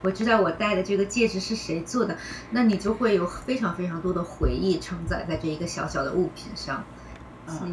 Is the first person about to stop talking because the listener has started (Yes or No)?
Yes